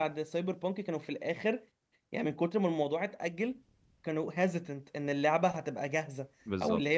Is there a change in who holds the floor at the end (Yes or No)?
No